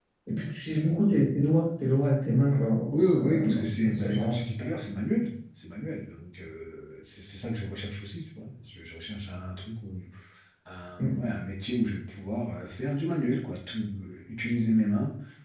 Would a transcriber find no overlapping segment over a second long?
No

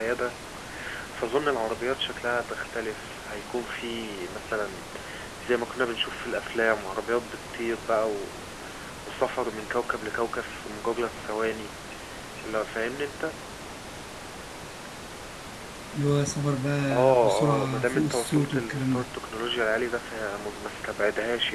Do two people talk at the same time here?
Yes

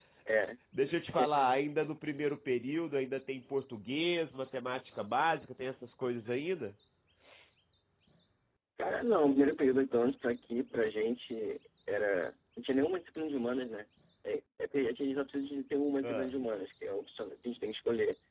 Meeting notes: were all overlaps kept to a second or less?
Yes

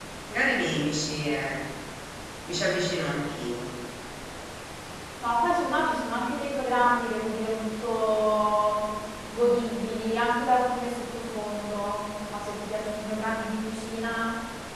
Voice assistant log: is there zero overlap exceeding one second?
Yes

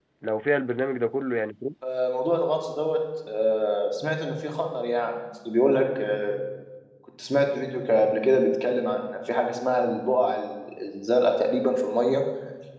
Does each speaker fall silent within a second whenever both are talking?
Yes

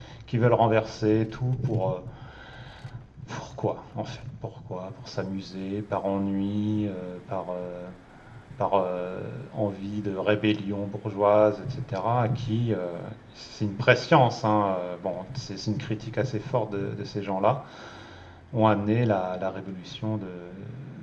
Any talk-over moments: No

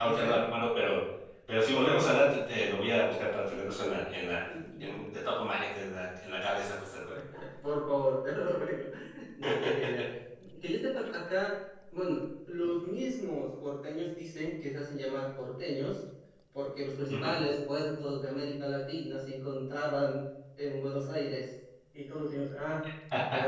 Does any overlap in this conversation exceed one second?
No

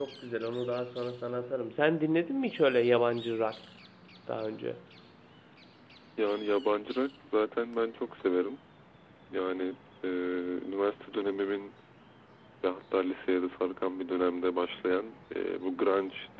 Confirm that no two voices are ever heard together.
Yes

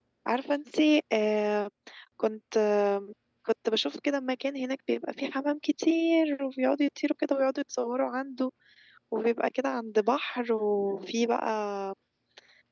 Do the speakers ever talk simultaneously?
No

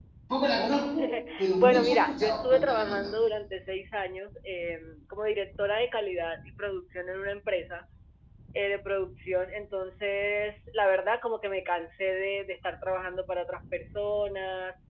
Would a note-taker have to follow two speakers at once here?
Yes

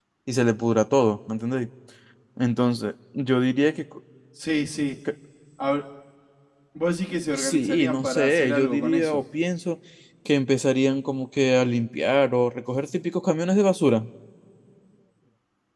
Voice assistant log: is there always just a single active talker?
No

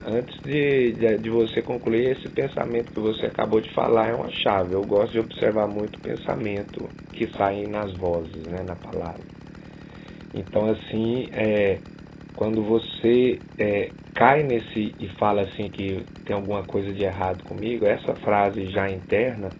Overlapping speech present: No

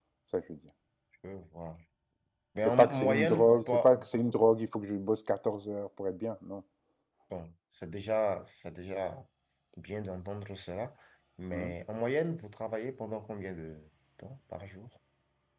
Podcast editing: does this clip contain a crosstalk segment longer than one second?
Yes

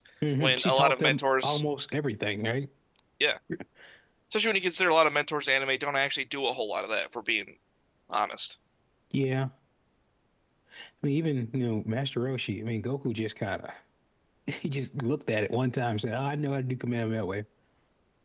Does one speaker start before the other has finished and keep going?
Yes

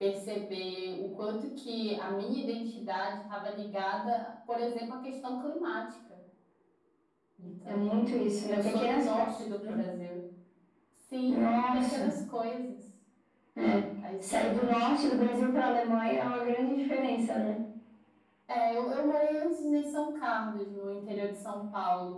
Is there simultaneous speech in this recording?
Yes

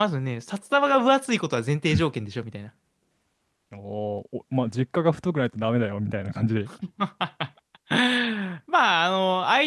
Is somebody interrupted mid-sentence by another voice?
No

